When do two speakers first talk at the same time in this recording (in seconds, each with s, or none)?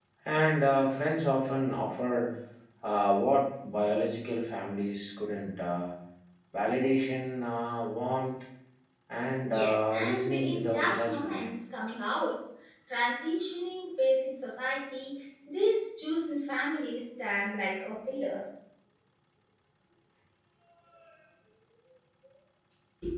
9.5 s